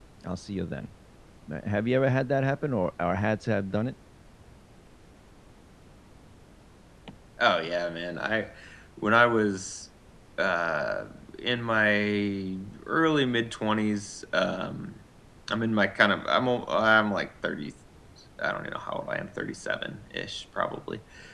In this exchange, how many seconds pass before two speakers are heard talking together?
none

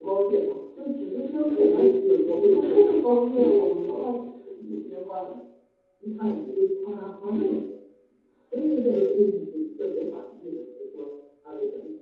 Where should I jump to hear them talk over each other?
1.5 s

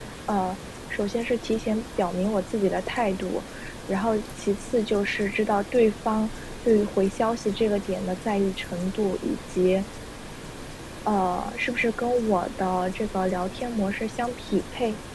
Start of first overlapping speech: none

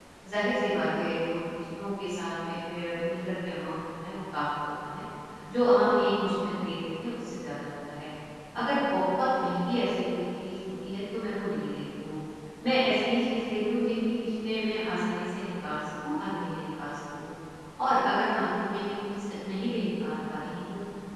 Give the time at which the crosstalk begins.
none

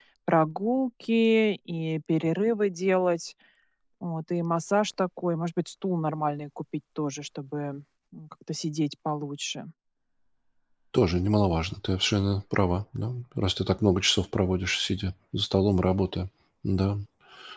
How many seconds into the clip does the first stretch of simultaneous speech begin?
none

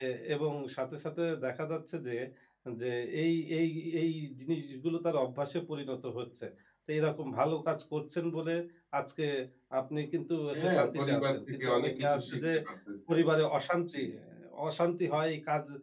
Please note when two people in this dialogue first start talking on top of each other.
10.6 s

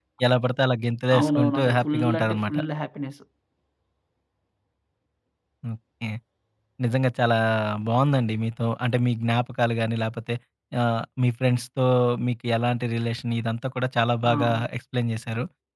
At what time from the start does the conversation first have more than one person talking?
1.2 s

